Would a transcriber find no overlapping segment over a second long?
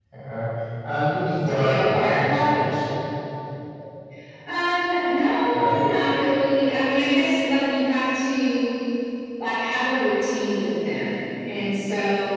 No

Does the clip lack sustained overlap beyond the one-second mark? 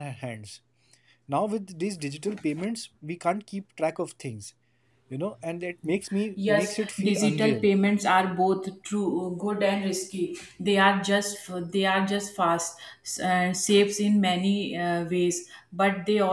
No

